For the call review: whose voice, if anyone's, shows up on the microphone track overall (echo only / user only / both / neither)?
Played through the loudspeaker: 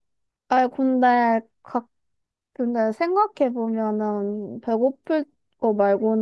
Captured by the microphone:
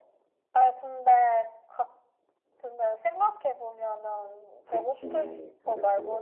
both